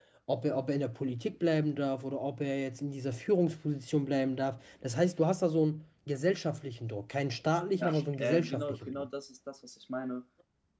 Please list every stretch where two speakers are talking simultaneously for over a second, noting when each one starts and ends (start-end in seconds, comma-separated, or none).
7.8-9.1